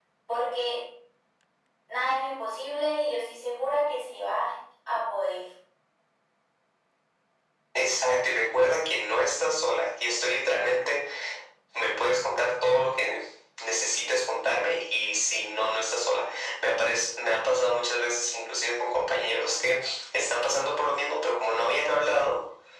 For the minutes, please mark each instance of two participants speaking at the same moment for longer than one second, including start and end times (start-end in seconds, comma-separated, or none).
none